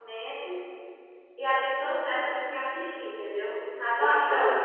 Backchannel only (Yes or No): Yes